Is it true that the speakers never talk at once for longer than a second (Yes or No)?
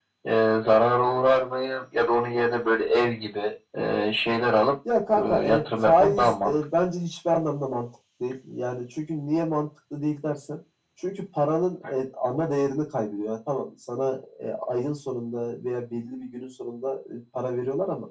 No